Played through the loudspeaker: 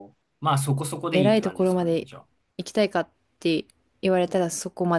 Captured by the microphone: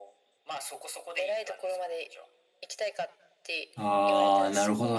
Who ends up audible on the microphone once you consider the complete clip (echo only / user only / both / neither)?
both